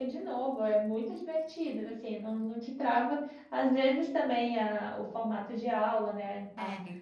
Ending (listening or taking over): listening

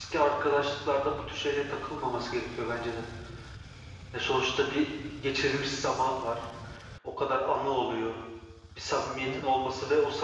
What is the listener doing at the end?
listening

